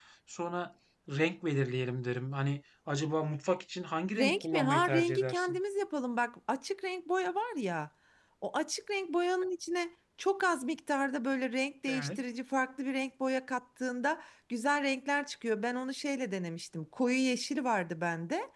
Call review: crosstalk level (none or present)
present